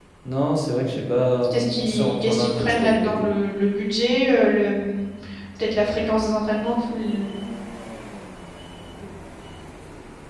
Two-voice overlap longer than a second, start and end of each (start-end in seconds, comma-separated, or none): 1.5-3.3